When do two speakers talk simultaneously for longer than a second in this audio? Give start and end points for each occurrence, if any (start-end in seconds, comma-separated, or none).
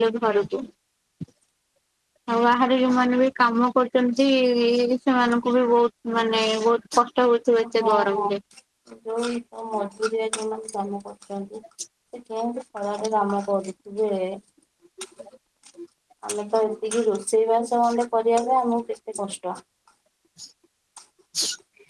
none